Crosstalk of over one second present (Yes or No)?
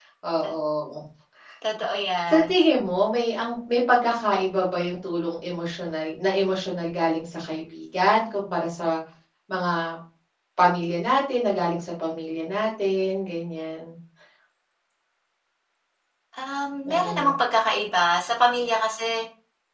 No